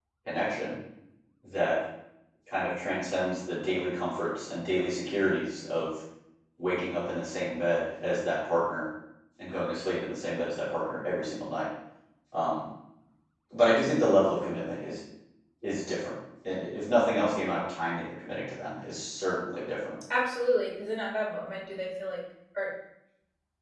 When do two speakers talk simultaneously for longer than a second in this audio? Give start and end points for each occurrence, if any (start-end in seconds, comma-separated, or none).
none